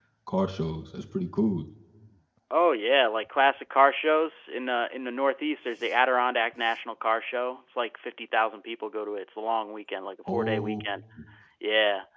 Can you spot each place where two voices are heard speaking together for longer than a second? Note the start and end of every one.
none

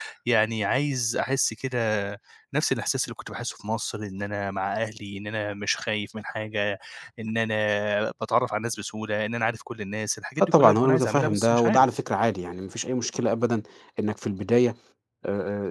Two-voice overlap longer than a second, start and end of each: 10.4-11.8

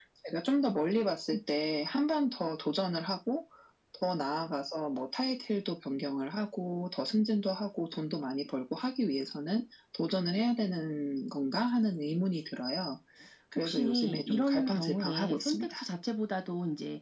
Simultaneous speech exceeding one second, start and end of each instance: 13.6-15.7

